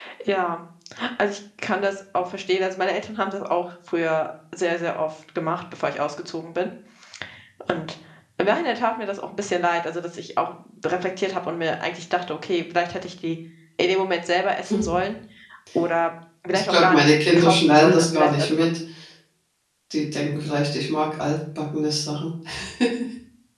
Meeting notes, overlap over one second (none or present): present